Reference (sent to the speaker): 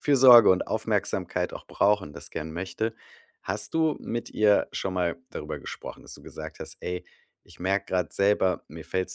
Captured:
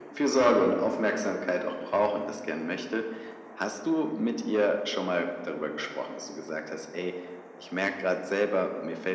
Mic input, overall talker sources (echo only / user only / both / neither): echo only